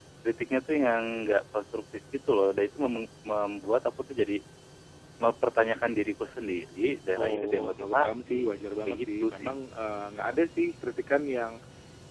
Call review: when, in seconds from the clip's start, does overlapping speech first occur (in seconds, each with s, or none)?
7.1 s